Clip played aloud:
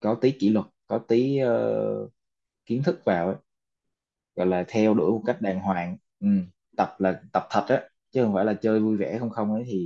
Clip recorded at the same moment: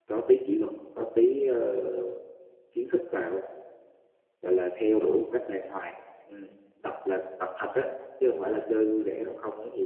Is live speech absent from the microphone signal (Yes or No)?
Yes